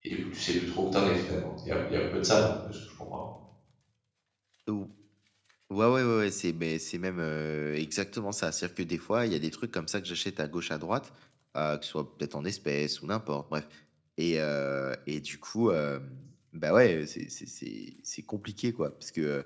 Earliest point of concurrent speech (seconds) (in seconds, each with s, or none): none